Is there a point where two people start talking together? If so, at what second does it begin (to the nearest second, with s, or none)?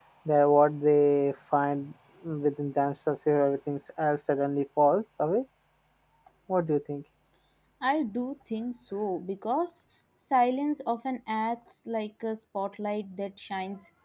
none